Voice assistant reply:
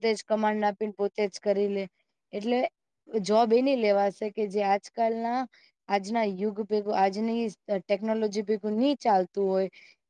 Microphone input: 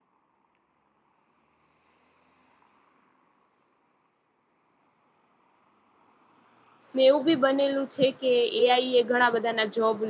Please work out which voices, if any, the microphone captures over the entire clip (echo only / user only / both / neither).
user only